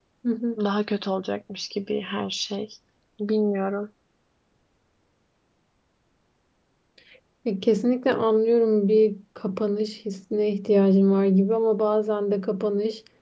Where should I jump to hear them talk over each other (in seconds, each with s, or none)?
none